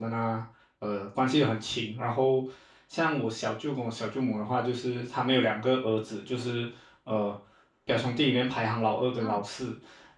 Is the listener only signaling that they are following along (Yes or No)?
Yes